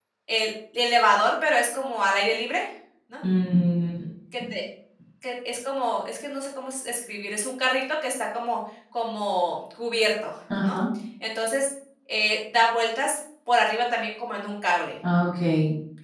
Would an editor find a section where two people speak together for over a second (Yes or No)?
No